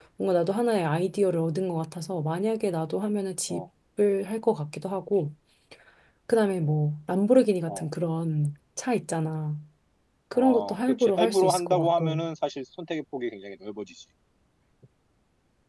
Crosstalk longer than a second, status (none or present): present